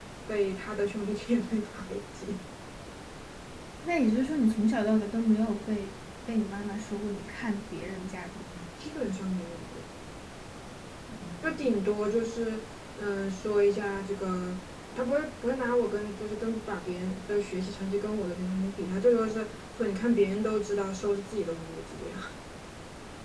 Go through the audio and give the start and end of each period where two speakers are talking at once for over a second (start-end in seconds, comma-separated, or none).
none